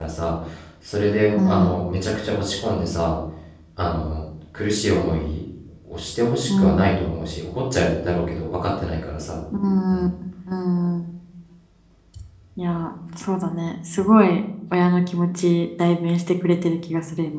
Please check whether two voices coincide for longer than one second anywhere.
No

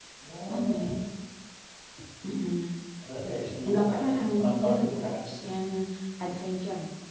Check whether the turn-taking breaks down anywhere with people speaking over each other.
Yes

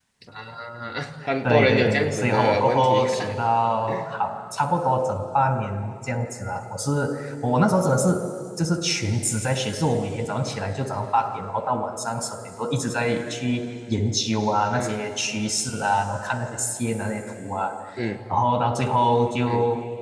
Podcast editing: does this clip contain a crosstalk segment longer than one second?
Yes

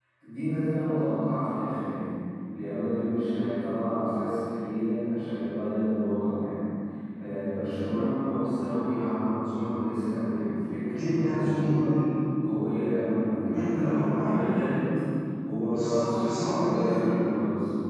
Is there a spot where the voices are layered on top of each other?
Yes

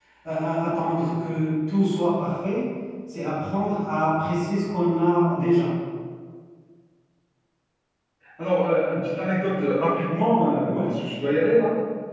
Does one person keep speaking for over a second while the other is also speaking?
No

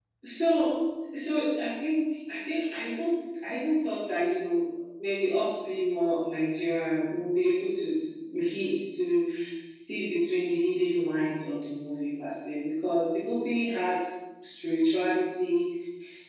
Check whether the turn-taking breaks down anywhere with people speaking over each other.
No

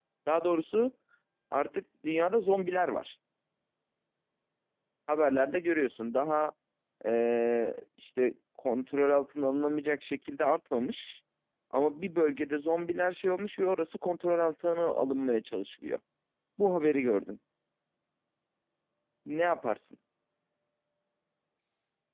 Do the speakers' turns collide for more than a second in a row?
No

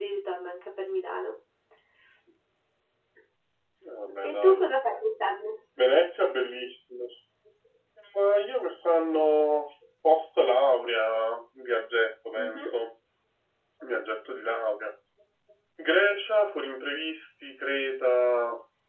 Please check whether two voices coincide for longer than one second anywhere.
No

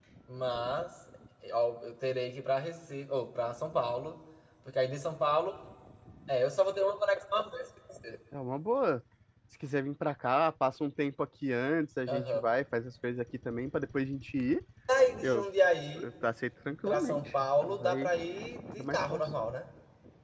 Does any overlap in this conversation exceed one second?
Yes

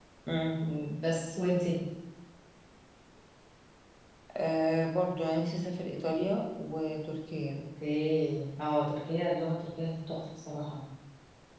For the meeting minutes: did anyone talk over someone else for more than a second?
No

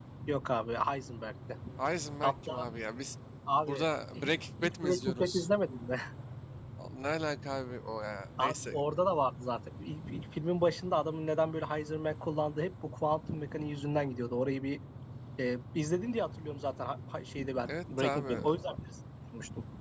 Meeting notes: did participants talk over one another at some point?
Yes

